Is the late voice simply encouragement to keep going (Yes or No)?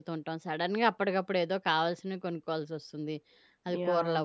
Yes